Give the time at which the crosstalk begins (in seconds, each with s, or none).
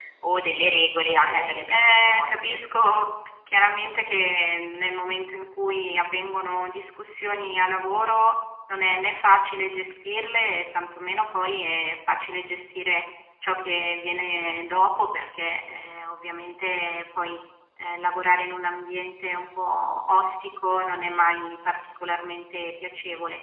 1.3 s